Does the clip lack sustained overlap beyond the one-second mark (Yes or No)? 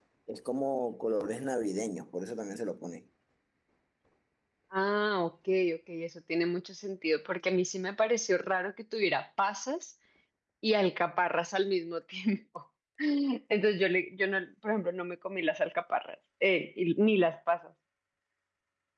Yes